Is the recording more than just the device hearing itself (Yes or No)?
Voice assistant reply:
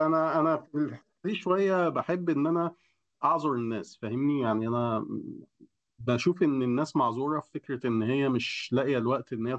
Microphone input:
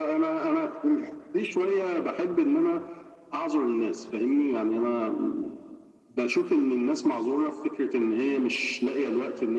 No